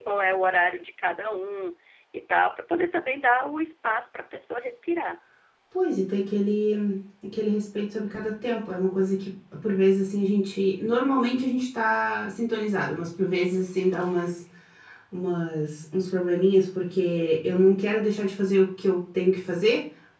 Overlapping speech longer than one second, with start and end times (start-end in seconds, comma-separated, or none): none